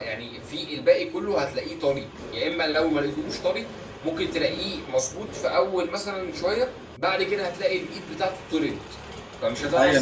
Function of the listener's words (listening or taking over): taking over